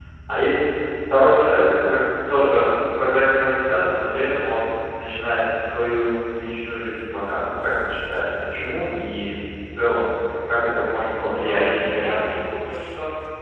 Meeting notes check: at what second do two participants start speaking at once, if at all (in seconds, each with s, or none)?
11.1 s